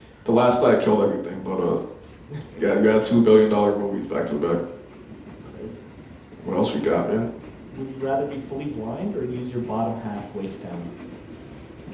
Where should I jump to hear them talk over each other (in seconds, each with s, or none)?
none